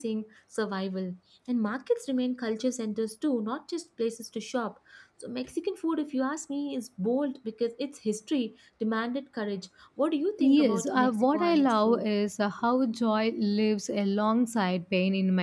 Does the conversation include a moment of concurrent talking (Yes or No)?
Yes